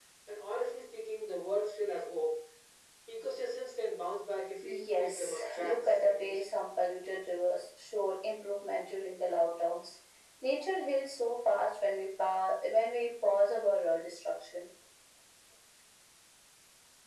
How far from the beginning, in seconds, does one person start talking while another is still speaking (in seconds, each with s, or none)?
4.6 s